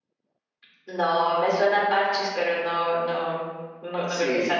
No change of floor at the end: No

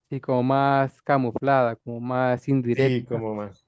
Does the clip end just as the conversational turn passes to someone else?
Yes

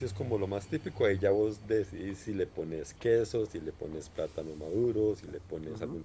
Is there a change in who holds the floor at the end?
Yes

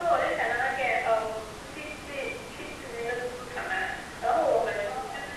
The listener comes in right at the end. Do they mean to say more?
No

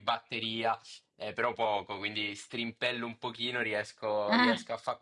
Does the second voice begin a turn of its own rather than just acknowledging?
No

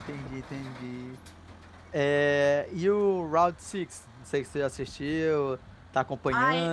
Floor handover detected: Yes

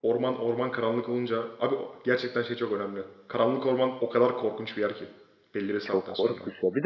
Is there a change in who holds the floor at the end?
Yes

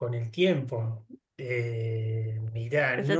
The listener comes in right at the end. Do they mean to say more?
No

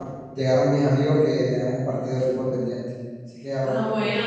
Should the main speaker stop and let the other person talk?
Yes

